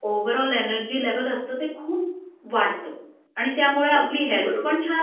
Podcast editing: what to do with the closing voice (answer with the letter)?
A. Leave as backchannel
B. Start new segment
A